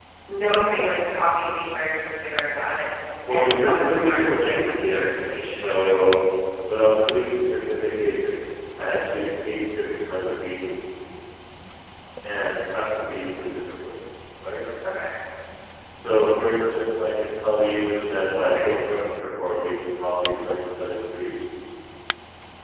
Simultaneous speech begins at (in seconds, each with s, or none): 3.3 s